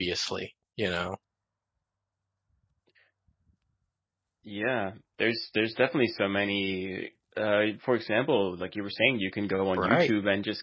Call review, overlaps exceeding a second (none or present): none